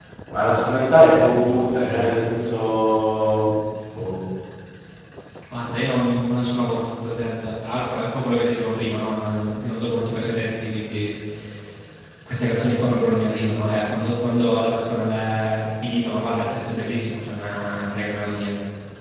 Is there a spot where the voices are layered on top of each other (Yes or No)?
No